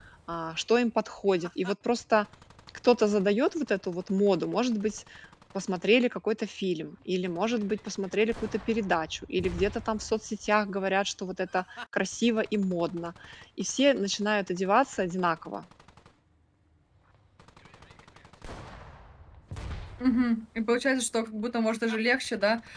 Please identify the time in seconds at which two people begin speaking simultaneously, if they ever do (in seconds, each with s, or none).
none